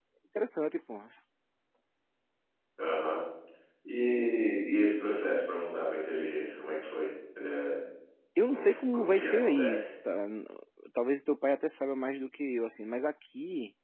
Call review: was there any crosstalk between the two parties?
Yes, from 8.5 s

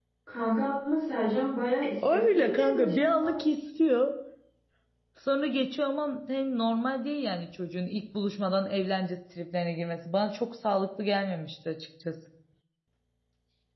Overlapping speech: Yes, from 2.0 s

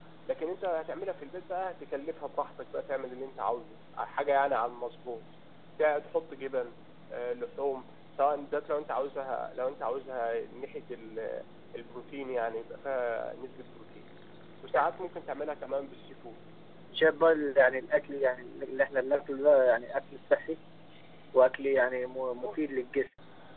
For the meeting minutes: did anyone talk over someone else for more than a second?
No

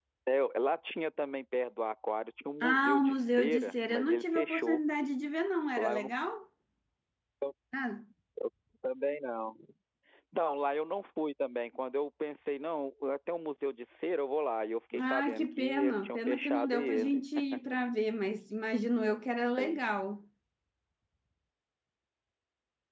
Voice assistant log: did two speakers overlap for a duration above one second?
Yes, from 2.6 s

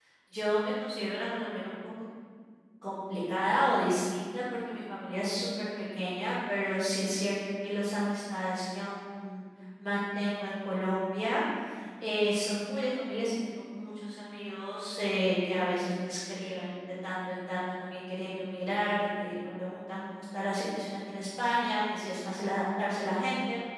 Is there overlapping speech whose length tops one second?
No

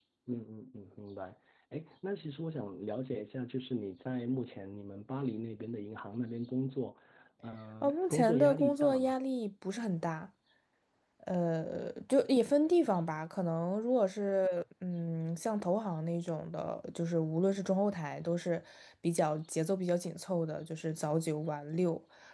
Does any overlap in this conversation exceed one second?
Yes, from 7.8 s

